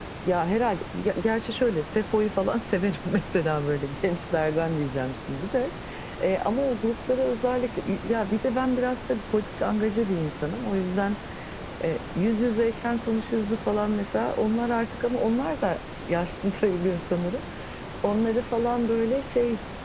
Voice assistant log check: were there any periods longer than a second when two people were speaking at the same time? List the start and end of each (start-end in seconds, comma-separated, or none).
none